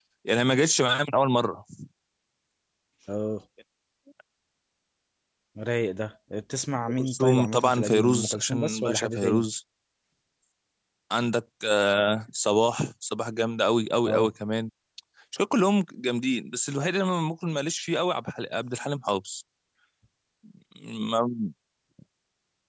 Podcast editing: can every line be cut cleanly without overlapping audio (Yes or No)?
No